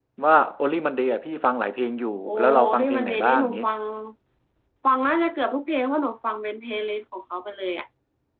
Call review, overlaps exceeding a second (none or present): present